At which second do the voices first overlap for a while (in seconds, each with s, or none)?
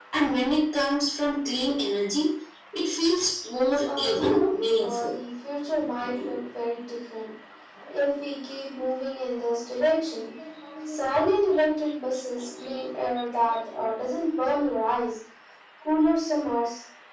3.8 s